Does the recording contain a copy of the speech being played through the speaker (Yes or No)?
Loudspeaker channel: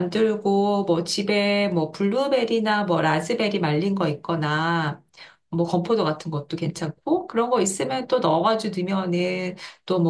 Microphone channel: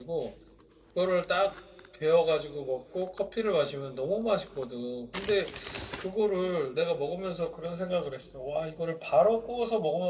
No